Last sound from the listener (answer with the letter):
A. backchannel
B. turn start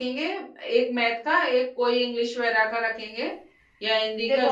B